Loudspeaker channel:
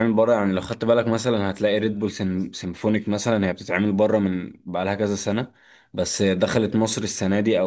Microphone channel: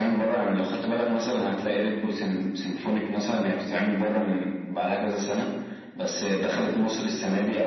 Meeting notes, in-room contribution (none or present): none